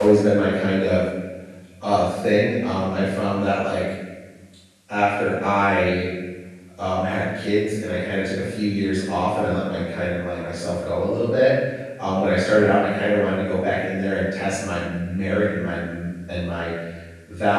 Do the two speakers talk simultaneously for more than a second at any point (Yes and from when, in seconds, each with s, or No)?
No